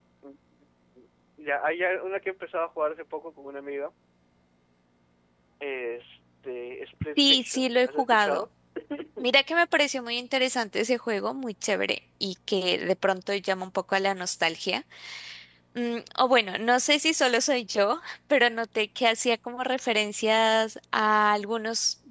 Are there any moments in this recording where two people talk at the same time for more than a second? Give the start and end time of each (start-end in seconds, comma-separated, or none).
7.2-8.4